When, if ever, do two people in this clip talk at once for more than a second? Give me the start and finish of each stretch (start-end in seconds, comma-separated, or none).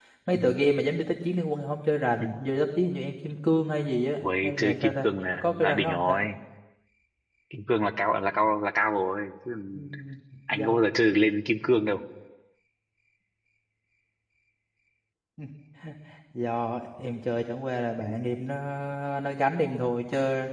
4.2-6.2